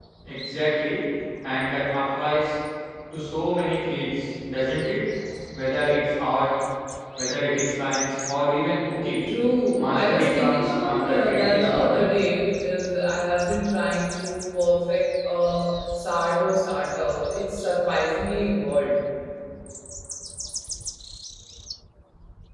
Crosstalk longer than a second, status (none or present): present